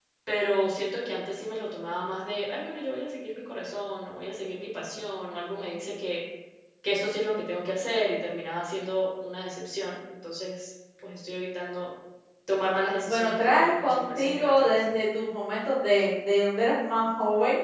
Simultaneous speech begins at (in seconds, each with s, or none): 13.1 s